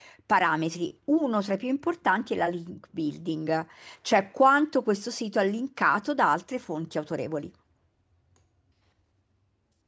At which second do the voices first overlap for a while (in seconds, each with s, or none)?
none